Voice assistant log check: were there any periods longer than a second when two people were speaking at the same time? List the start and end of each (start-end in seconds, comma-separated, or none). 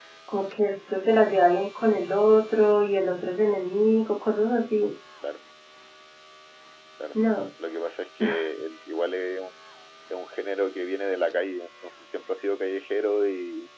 none